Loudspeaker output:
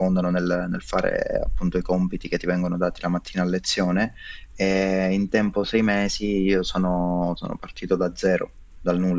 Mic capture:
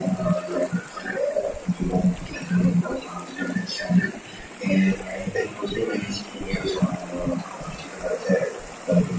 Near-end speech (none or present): none